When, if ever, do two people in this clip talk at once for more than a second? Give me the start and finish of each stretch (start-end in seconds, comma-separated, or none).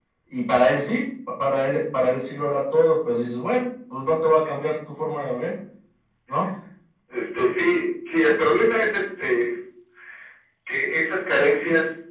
none